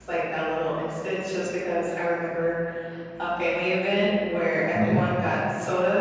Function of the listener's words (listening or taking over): listening